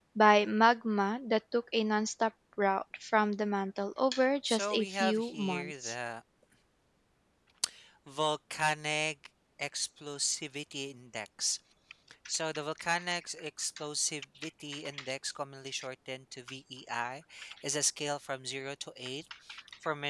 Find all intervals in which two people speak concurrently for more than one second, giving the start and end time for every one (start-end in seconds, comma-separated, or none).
4.4-5.9